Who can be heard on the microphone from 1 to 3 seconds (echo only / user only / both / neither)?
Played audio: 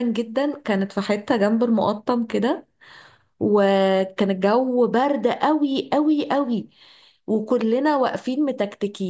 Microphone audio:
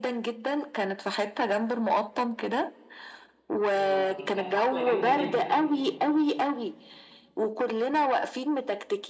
echo only